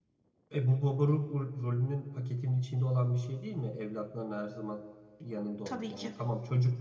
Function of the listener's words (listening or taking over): listening